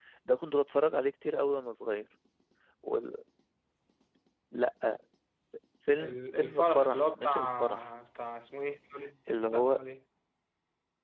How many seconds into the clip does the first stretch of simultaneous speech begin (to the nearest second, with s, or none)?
6 s